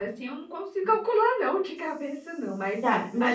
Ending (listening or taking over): taking over